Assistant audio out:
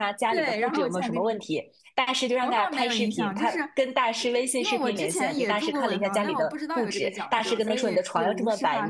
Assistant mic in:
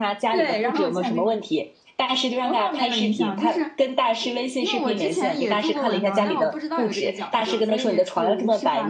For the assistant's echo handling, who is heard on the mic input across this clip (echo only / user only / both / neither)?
echo only